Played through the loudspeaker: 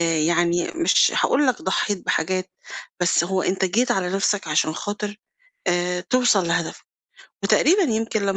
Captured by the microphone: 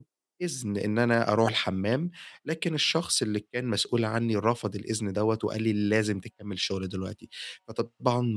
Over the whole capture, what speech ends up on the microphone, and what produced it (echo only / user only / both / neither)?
user only